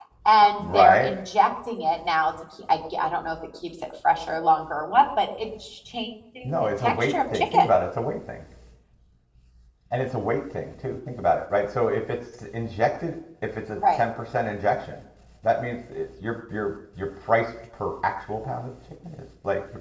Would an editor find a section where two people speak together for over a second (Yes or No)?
Yes